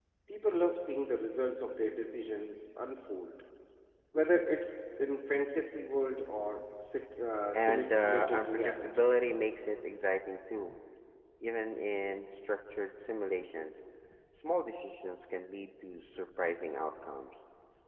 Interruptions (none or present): present